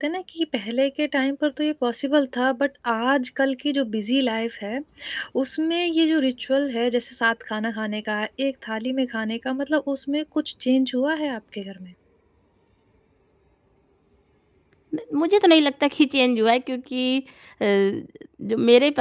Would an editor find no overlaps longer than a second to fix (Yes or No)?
Yes